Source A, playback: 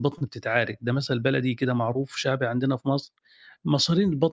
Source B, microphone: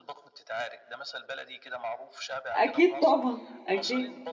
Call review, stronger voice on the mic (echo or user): user